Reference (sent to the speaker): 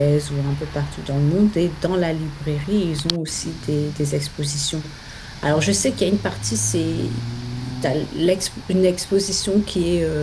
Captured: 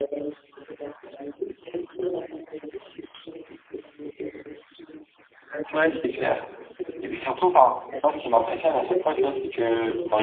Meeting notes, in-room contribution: present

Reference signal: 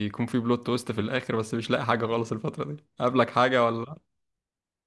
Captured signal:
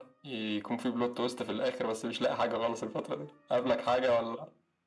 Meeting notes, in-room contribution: none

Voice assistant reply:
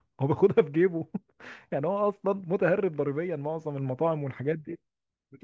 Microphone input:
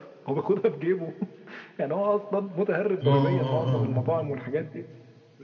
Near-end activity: present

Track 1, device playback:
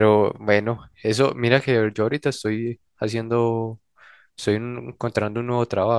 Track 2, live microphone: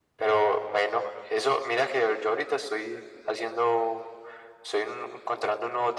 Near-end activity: none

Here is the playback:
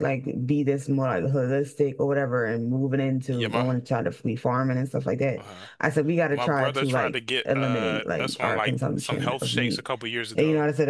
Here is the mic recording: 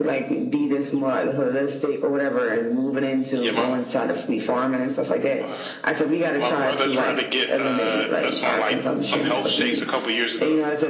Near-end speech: none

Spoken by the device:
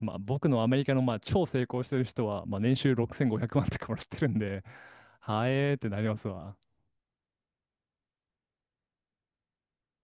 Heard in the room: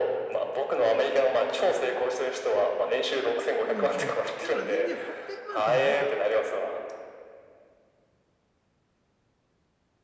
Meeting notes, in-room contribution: present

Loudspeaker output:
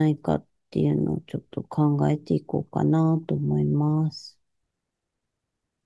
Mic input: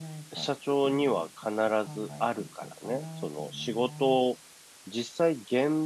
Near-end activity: present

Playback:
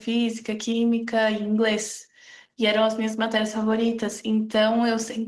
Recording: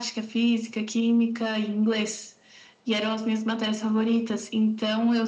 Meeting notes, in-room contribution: none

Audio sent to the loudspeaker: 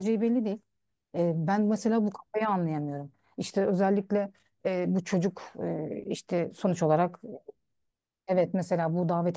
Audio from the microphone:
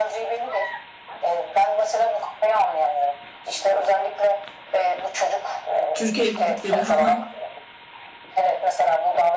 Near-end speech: present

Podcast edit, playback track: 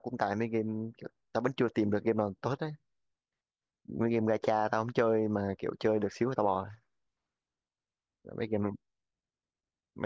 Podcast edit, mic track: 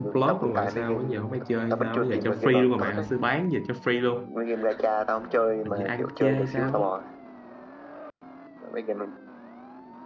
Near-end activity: present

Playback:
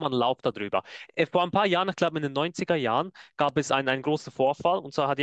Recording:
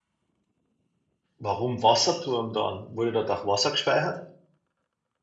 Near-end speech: present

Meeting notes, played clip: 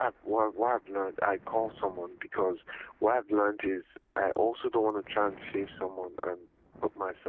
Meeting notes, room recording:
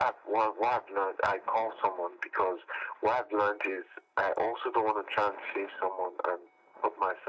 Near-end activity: none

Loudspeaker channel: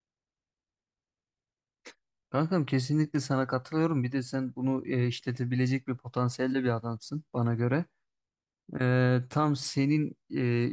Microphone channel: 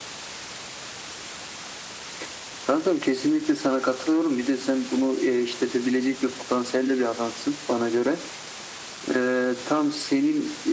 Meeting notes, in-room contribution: none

